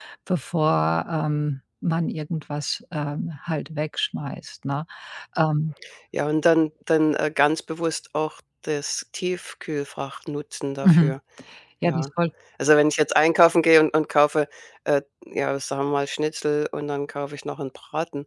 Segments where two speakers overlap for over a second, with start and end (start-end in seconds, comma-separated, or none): none